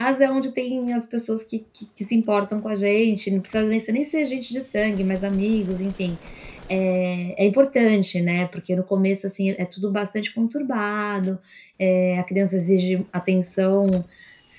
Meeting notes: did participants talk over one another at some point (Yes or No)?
No